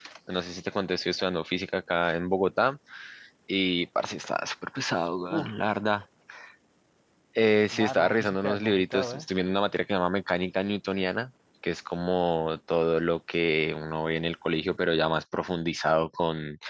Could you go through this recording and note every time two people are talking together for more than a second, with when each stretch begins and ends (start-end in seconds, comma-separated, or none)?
7.7-9.3